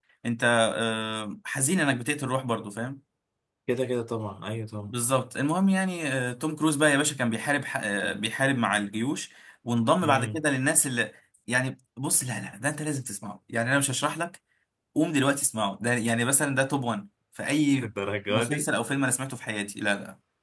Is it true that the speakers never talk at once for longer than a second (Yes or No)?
Yes